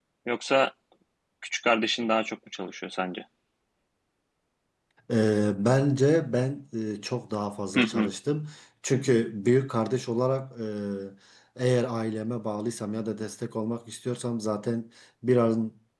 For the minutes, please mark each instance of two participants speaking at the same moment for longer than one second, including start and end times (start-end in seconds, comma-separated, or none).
none